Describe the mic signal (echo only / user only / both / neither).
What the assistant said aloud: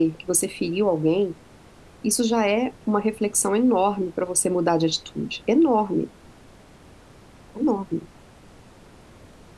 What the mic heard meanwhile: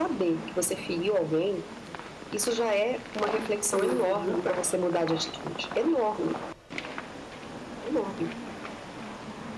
both